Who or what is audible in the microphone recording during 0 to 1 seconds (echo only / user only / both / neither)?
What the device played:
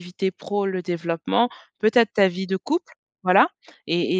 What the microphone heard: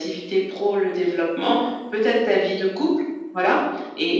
echo only